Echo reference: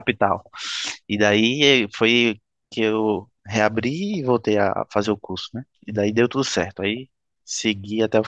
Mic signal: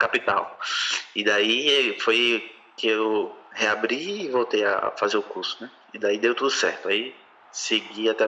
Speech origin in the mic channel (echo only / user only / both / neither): echo only